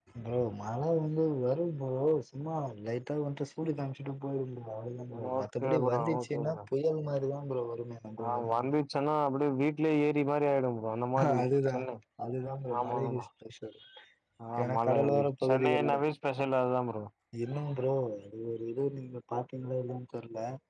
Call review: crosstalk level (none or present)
present